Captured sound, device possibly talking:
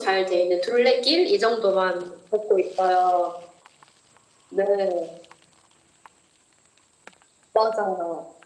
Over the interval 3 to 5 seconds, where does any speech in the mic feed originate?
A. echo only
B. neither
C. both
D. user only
A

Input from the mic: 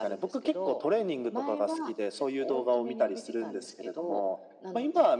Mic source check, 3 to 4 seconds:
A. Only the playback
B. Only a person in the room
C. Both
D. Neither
A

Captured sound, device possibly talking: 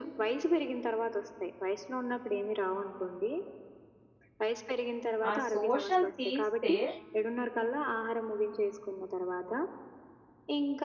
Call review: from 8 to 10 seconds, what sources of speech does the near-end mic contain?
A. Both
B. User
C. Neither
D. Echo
D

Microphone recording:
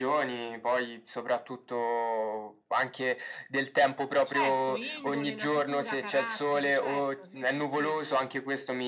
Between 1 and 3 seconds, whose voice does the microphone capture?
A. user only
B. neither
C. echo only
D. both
C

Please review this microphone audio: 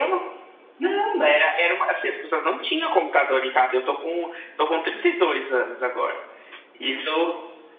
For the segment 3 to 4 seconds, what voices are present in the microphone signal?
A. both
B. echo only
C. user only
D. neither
B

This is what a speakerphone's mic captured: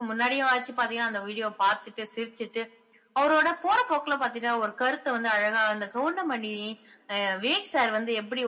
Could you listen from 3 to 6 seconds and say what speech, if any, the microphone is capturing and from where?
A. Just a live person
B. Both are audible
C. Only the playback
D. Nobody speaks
C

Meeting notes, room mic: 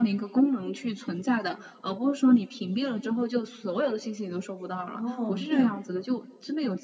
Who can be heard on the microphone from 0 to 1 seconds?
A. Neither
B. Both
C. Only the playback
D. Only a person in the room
C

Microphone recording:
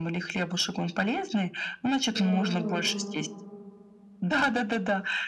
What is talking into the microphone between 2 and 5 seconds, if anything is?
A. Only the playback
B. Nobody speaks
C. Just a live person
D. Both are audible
D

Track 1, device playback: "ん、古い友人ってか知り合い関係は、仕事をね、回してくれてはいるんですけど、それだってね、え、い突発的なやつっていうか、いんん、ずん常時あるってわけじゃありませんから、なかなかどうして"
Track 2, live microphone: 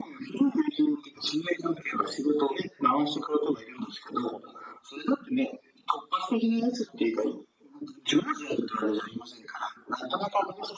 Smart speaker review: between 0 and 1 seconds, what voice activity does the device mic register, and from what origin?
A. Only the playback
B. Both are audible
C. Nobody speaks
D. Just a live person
A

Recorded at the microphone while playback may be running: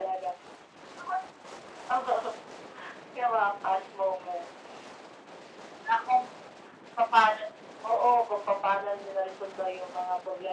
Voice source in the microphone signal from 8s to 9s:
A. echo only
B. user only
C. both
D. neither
A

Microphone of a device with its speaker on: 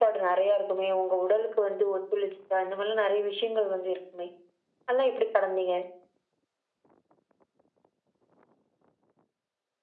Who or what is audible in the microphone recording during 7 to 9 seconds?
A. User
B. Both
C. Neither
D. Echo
C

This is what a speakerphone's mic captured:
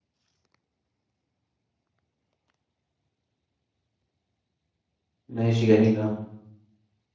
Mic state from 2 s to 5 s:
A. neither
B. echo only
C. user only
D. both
A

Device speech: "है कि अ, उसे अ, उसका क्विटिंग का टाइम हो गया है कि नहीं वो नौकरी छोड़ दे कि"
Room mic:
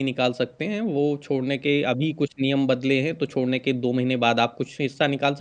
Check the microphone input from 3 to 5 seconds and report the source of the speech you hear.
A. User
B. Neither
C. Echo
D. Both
A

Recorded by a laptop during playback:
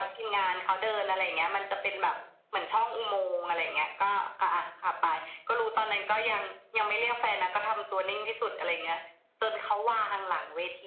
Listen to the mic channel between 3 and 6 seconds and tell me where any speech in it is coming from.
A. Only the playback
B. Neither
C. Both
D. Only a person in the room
A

